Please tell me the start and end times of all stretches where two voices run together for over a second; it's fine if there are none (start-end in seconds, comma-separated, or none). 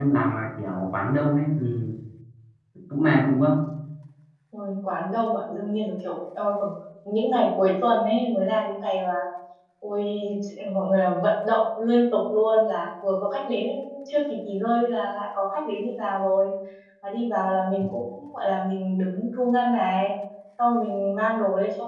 none